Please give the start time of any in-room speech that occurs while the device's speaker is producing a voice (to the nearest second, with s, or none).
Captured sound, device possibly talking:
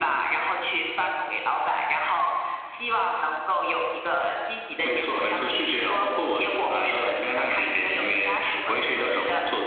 none